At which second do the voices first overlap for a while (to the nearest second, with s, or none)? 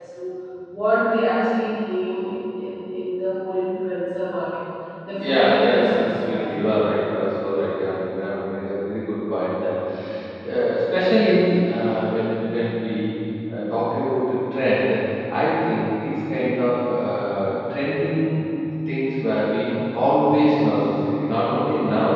5 s